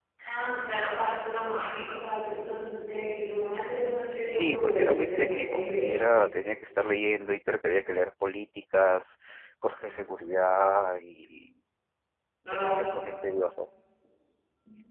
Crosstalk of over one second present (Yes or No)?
Yes